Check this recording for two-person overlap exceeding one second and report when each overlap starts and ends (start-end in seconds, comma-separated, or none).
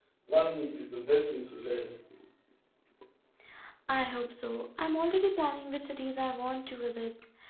none